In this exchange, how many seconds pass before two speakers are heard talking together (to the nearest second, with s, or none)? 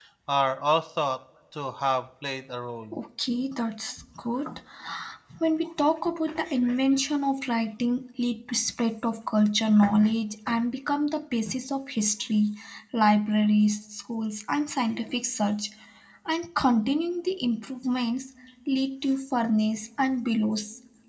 none